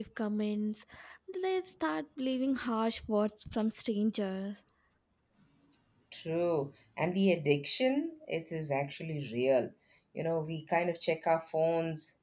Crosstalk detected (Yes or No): No